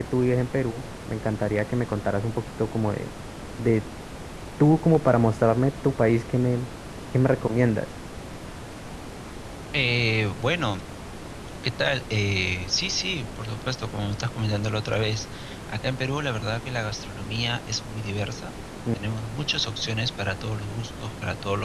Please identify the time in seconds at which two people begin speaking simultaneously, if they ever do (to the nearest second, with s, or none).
none